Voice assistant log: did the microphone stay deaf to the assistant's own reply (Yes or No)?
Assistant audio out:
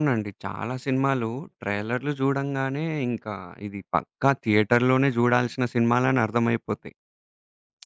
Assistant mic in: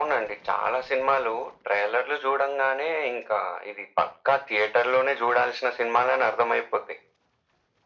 No